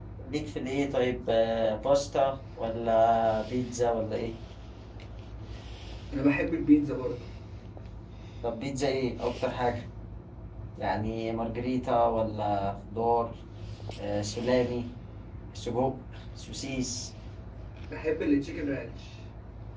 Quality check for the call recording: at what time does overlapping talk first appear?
none

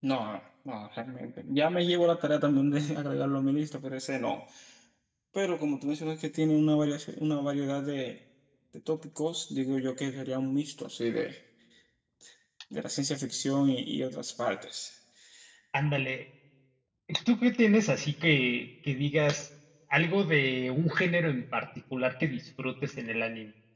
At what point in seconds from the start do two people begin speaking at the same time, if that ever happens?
none

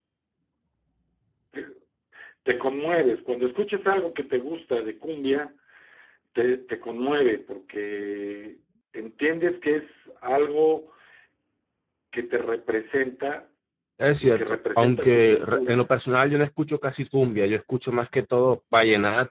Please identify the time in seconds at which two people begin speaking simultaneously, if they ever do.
14.2 s

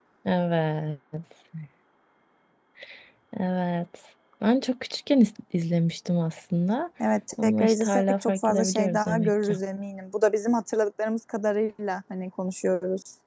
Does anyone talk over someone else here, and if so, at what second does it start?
7.4 s

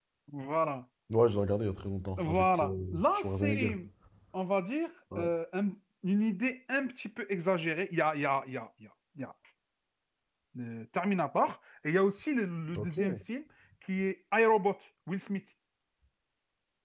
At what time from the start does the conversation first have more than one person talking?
2.2 s

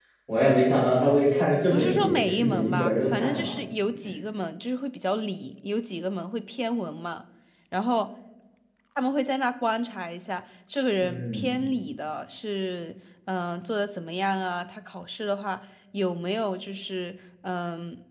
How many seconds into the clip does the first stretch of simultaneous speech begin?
1.7 s

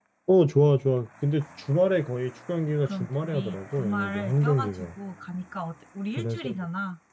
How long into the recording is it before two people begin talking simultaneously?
2.8 s

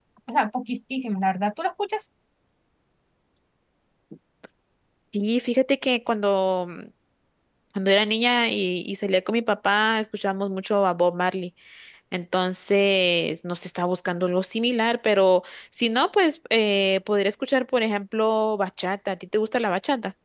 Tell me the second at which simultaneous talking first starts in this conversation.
none

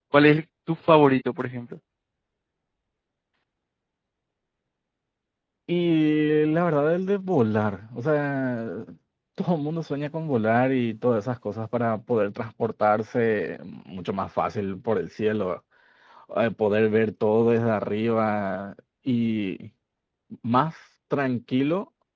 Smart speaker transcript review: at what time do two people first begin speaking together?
none

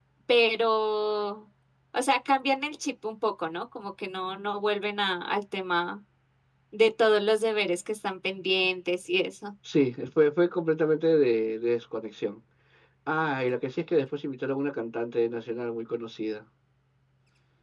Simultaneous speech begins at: none

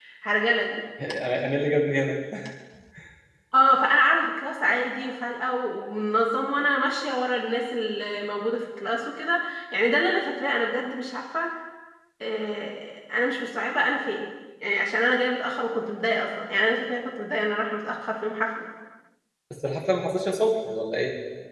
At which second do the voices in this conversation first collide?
none

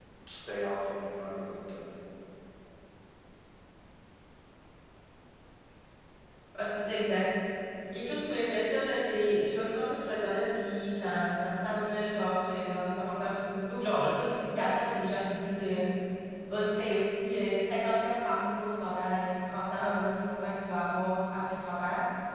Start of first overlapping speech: none

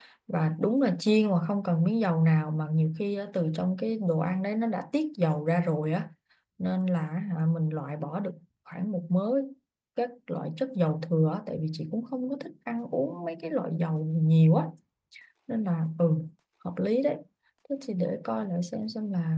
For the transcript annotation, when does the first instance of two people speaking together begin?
none

